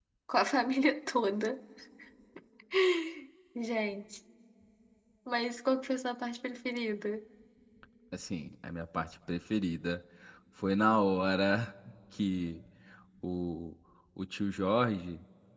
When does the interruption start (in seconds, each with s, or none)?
none